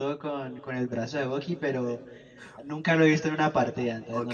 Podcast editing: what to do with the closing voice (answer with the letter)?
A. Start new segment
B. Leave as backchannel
A